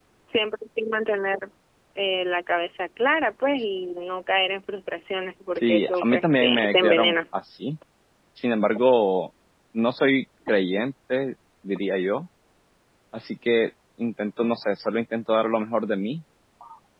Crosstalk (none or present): present